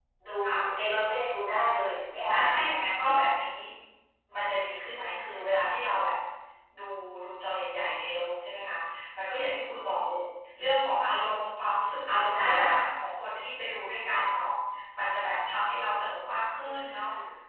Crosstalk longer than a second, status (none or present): none